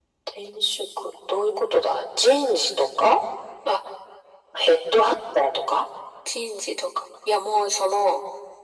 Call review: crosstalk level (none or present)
none